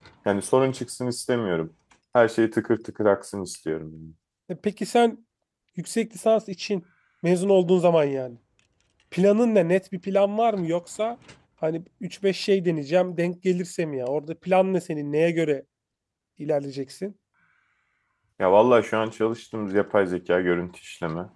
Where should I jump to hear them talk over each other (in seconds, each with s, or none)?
none